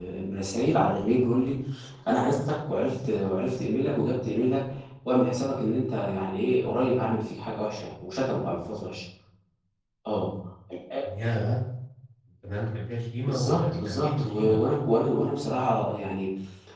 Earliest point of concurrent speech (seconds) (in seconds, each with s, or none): 13.3 s